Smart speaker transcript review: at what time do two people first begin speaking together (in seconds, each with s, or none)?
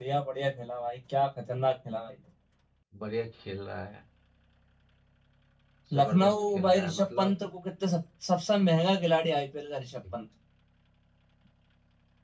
6.0 s